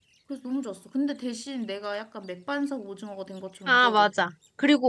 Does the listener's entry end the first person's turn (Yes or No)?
Yes